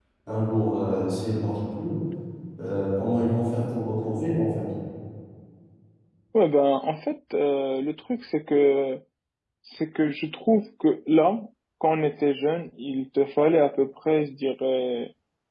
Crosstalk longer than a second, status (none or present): none